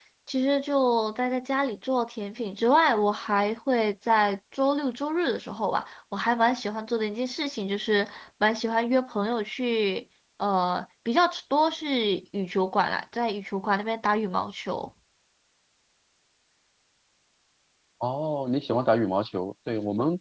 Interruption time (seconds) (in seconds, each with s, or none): none